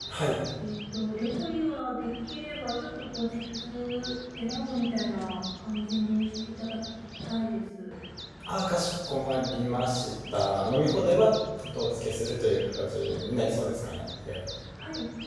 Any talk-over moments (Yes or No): No